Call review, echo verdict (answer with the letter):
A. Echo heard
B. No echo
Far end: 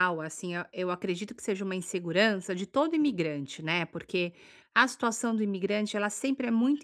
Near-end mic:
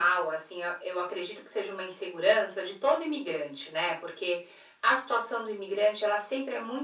A